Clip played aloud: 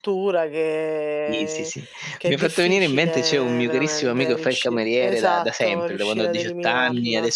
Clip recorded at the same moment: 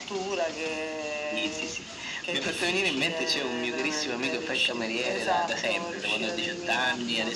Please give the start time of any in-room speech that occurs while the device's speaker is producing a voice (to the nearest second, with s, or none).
none